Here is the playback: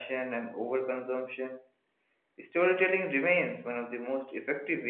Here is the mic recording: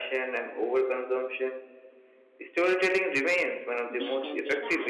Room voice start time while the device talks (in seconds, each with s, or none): 3.9 s